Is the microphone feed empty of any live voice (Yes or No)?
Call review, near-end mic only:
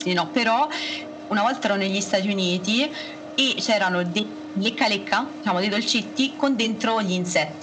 Yes